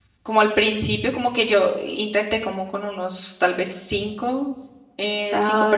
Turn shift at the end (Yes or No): No